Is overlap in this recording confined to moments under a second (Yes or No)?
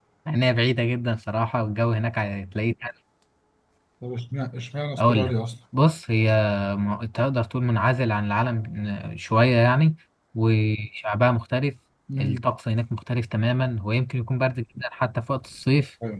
Yes